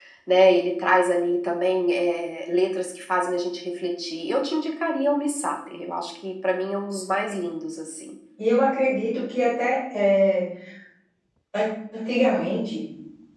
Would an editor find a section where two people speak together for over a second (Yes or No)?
No